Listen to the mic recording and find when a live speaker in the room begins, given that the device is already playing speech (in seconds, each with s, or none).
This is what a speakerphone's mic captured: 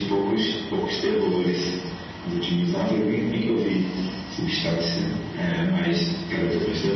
none